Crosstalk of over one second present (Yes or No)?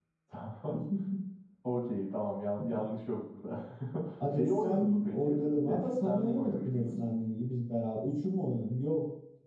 Yes